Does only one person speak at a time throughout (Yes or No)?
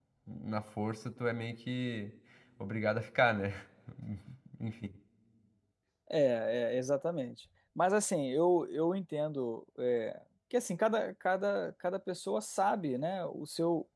Yes